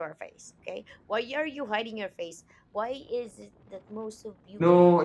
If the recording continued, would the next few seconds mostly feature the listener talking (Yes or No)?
Yes